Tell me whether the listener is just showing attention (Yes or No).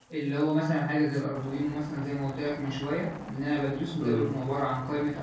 Yes